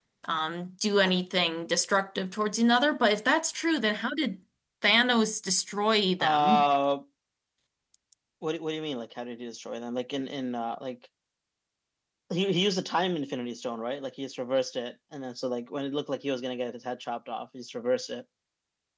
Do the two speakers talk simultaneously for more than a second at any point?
No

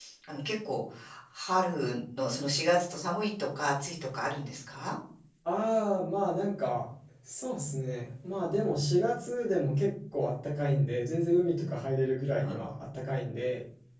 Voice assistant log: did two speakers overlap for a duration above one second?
No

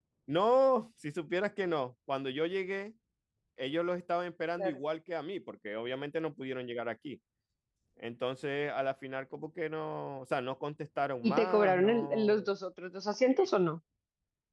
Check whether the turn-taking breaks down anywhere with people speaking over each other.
Yes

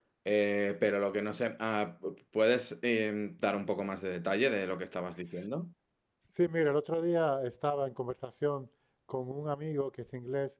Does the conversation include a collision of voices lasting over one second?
No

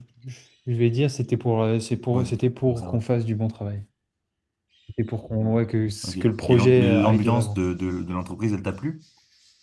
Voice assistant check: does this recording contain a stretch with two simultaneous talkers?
Yes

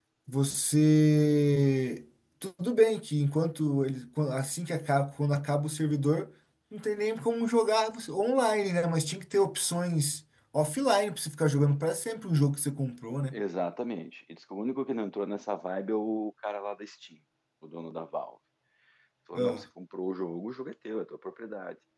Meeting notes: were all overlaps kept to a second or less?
Yes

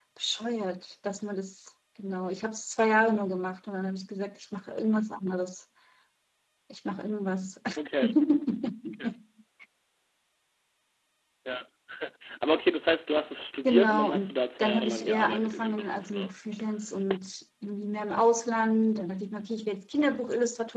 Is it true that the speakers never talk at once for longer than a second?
No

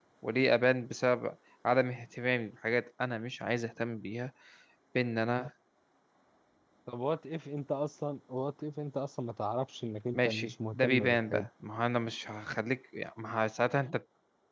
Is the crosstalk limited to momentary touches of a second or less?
No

